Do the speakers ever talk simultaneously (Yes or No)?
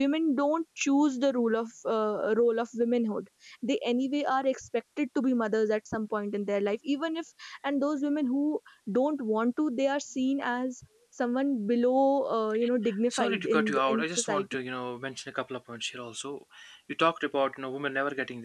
Yes